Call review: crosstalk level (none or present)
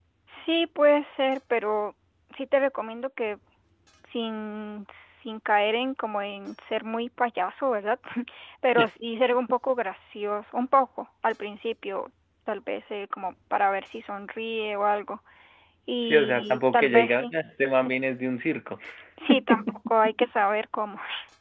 present